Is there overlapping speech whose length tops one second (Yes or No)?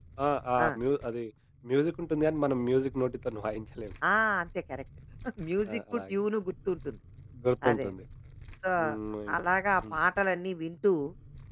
No